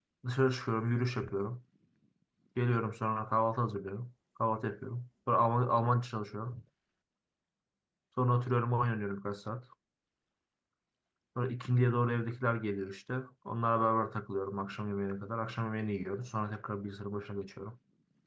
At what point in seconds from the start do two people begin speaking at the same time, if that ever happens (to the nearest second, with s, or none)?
none